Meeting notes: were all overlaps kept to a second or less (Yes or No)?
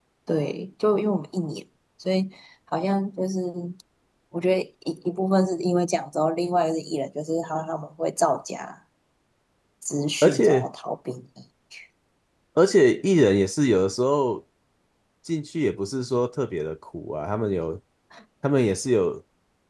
Yes